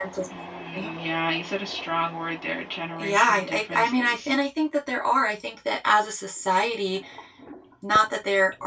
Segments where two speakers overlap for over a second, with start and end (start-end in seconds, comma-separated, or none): 3.0-4.3